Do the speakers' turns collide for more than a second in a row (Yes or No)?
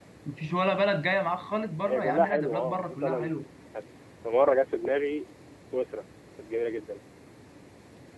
Yes